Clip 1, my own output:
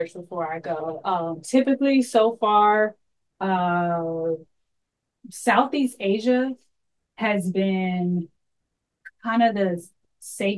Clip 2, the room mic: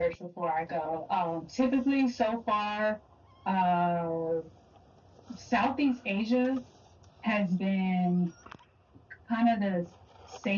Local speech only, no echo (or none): none